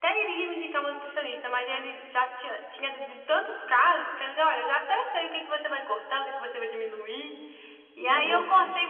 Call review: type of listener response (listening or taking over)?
listening